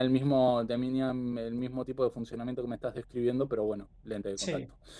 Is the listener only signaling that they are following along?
No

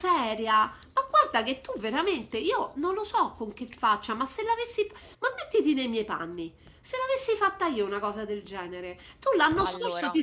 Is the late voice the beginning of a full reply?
No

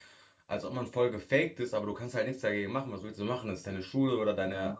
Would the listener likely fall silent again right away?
No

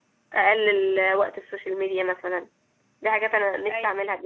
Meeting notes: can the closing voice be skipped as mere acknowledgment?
Yes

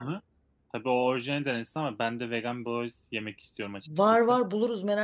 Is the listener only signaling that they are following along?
No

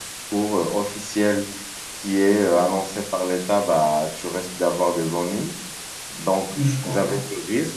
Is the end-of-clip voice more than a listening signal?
No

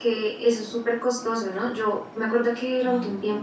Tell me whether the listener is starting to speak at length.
No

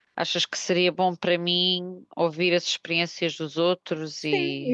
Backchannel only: No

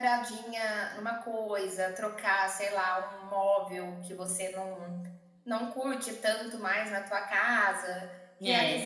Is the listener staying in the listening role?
Yes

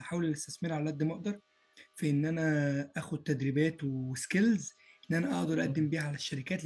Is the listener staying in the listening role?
Yes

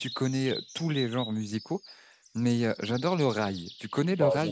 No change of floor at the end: No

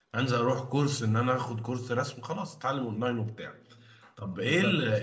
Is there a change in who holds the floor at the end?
No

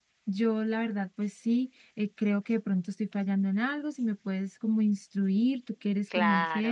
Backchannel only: No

